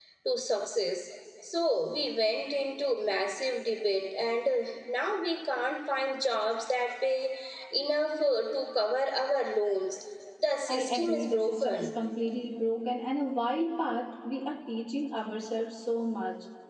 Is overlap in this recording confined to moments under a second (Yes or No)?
No